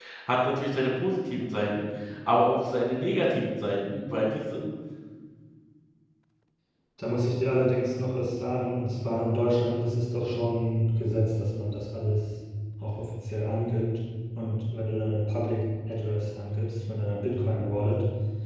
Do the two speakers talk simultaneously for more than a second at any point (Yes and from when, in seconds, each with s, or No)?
No